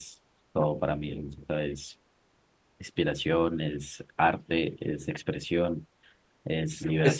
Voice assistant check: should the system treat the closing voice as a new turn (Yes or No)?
Yes